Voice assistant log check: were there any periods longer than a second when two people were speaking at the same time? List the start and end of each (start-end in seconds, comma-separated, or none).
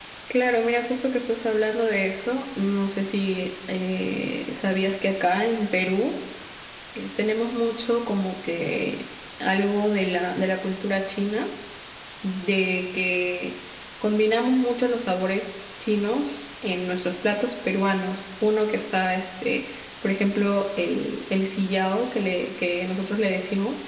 none